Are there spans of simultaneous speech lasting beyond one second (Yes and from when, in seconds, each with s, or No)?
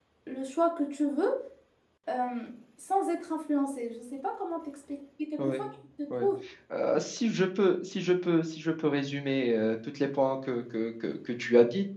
No